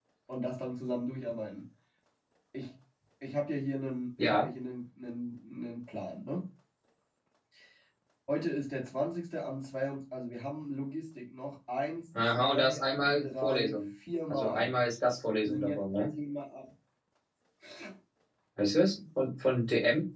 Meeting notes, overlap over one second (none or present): present